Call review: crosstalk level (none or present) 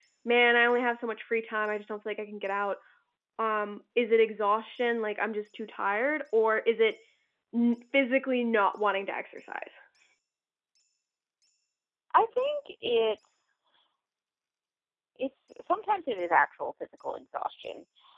none